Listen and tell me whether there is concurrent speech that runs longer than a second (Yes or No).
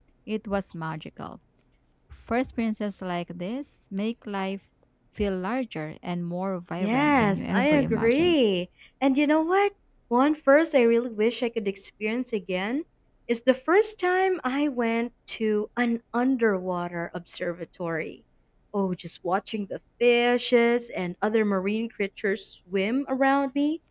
Yes